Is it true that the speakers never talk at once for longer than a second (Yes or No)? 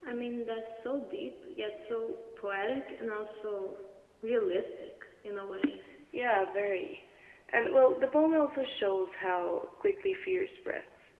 Yes